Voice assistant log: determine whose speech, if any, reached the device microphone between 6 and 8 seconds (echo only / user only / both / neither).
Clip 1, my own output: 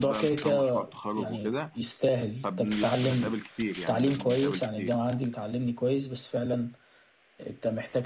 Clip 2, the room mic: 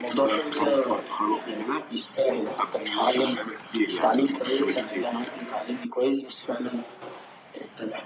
echo only